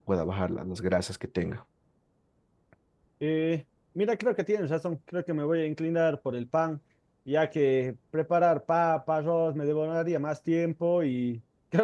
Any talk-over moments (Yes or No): No